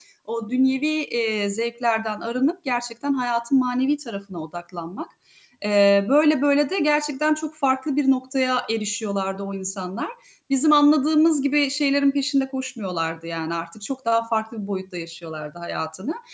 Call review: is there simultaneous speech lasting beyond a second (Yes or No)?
No